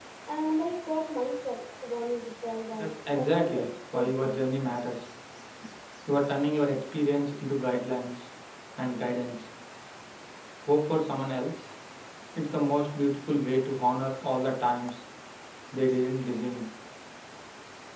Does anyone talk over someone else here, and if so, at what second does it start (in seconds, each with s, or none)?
2.7 s